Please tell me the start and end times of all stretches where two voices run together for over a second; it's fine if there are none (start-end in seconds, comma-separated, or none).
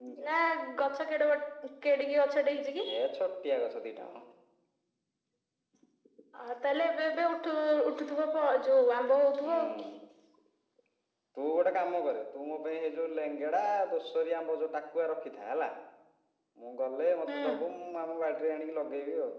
none